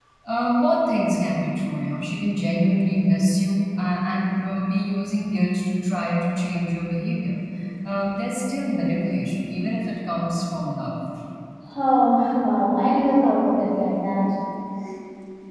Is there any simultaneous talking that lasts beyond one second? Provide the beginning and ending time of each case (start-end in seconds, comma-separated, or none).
none